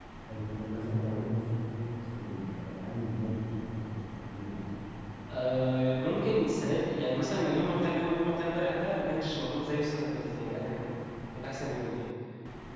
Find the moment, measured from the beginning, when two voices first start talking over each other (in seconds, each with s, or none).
none